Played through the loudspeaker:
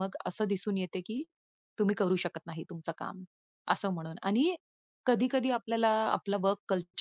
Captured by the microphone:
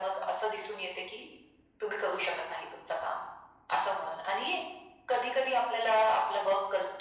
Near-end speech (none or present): none